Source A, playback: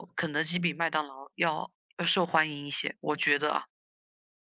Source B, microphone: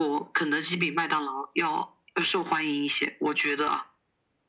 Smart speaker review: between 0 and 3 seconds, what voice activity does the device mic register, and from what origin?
echo only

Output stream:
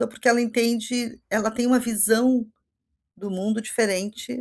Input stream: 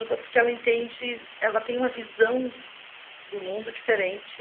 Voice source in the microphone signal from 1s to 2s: echo only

